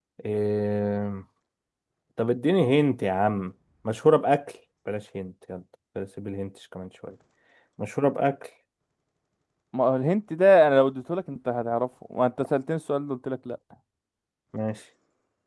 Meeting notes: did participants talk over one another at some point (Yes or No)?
No